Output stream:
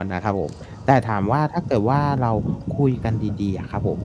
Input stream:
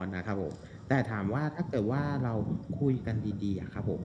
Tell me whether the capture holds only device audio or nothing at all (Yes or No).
Yes